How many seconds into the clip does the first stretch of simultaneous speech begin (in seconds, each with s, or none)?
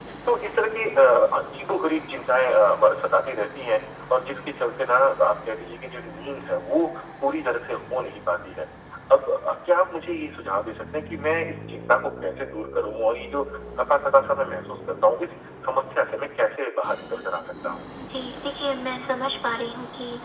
none